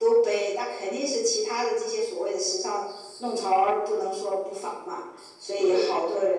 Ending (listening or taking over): listening